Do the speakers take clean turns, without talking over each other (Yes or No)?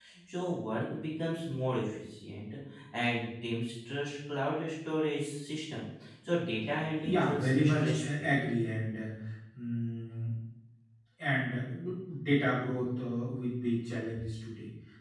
No